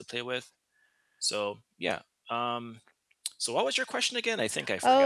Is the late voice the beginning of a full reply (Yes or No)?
Yes